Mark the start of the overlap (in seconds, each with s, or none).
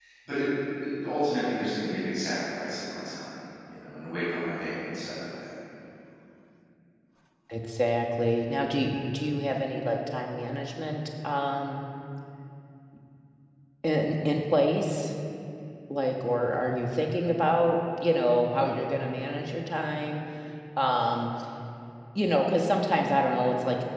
none